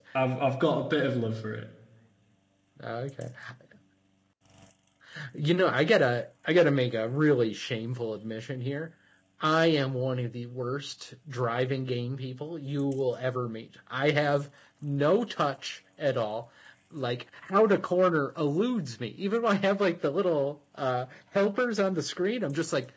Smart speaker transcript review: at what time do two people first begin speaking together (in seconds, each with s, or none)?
none